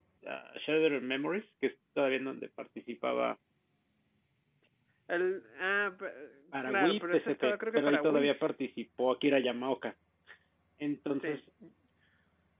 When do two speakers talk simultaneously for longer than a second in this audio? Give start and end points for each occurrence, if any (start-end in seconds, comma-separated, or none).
6.7-8.3